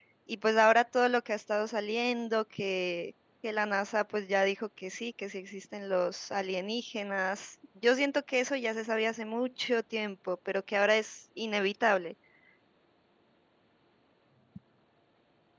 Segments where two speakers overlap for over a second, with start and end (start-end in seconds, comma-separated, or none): none